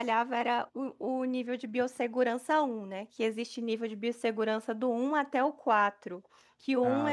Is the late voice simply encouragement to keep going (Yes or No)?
Yes